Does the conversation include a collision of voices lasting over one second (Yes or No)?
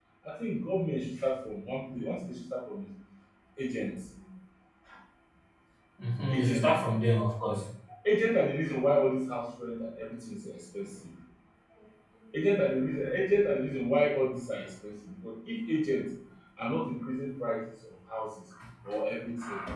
No